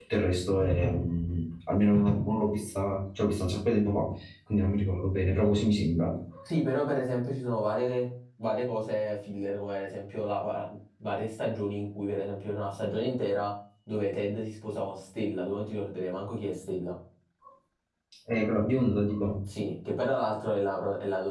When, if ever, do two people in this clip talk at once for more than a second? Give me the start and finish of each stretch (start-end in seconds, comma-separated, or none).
none